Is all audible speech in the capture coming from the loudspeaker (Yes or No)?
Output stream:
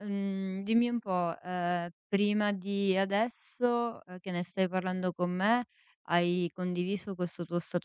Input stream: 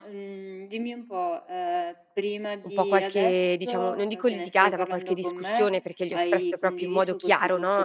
No